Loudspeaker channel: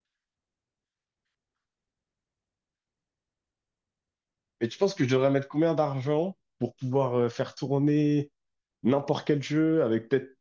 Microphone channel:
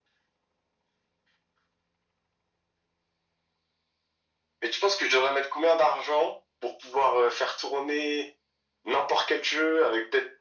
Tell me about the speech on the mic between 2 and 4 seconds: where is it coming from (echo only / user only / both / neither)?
neither